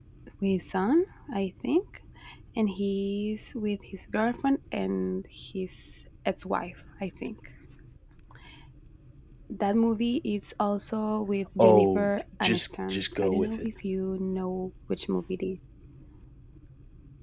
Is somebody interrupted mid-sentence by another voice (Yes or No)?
Yes